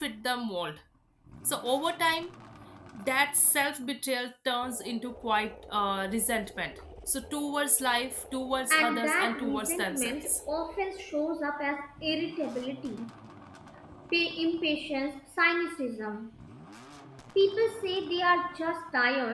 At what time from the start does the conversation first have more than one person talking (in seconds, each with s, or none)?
8.7 s